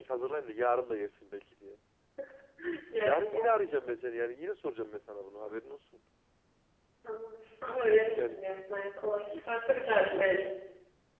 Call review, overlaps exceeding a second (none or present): present